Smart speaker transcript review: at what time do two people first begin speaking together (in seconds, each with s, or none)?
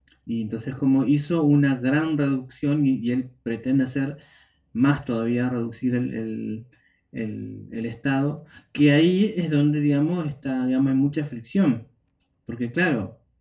none